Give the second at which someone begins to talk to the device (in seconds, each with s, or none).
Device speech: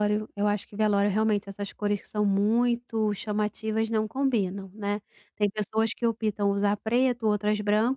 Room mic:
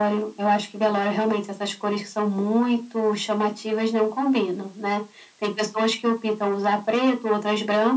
none